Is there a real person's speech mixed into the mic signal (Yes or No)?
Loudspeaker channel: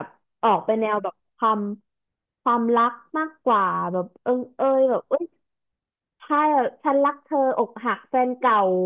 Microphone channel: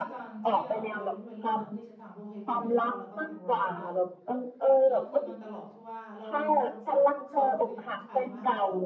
Yes